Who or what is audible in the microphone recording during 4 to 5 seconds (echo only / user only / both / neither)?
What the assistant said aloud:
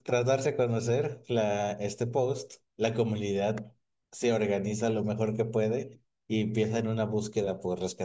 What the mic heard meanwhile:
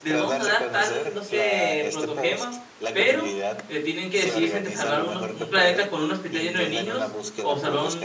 both